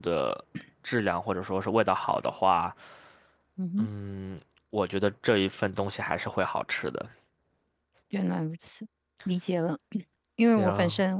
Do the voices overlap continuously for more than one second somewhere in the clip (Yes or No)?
No